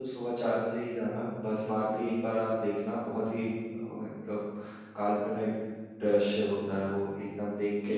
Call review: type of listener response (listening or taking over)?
taking over